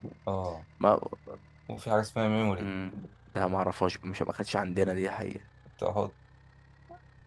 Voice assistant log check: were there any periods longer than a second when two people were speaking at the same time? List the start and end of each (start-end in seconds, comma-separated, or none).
none